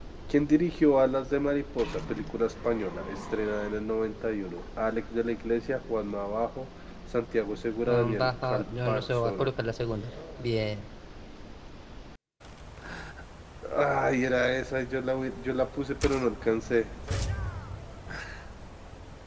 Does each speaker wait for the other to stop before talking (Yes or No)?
No